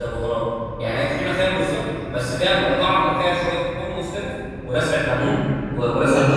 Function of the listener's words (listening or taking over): taking over